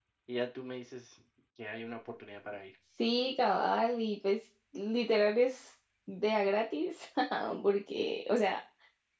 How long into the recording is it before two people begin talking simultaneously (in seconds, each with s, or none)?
none